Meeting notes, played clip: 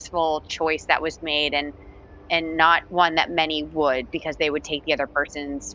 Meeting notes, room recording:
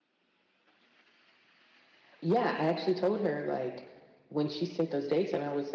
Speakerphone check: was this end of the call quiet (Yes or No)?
No